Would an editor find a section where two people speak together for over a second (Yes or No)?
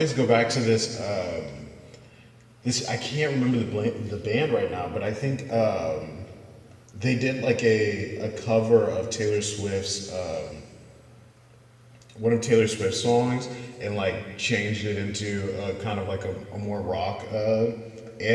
No